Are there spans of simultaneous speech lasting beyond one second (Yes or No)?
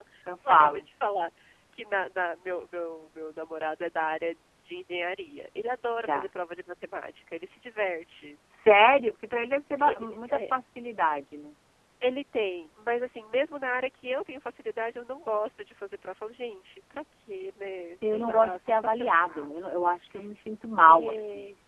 Yes